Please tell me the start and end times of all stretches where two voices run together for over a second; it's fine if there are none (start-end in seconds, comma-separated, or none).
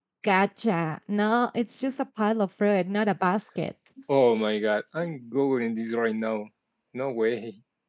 none